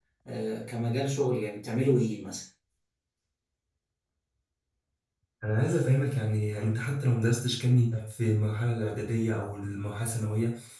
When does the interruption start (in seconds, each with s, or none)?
none